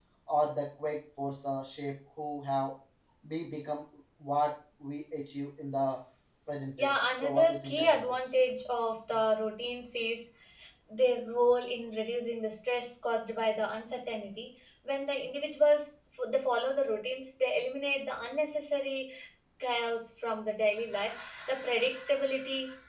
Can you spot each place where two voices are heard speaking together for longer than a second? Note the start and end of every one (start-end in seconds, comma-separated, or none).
6.8-8.2